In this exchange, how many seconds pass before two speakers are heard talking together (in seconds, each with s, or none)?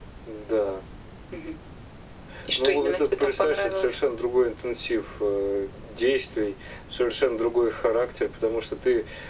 2.6 s